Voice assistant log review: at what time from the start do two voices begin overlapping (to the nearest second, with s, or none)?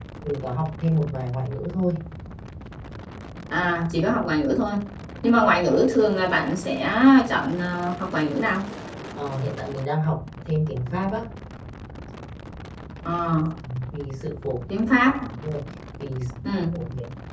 none